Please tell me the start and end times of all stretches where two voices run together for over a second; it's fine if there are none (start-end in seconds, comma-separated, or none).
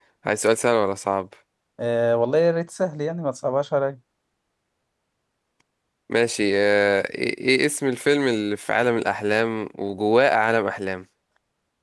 none